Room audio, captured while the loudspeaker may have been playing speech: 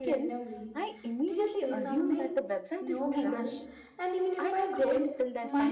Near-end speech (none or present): present